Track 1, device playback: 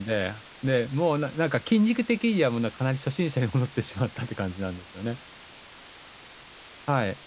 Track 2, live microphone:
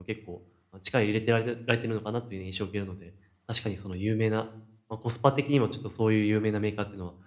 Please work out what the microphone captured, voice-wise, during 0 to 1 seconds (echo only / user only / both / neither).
user only